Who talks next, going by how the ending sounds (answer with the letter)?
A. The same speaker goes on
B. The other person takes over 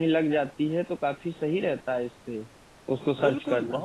B